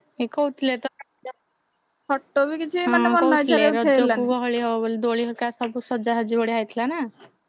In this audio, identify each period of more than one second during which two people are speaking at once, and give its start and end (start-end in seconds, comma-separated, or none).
2.9-4.3